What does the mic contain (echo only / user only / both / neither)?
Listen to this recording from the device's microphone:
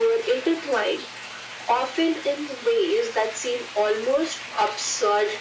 echo only